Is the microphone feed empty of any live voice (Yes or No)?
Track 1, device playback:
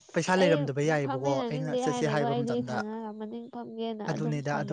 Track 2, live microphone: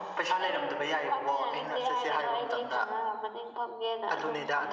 Yes